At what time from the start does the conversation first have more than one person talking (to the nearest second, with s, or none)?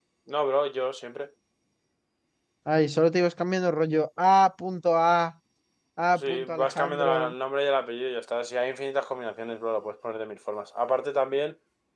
6 s